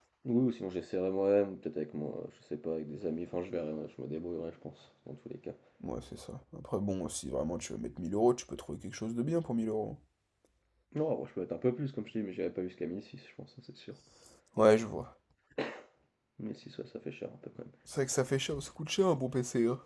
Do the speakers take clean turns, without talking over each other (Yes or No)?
Yes